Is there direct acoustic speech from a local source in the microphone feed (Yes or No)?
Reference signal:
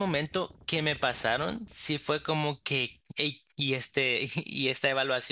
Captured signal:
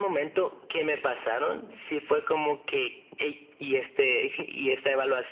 No